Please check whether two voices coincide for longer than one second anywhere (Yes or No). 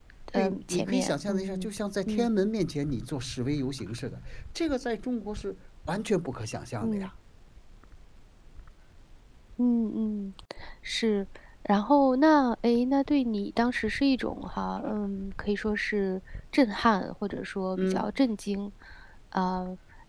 Yes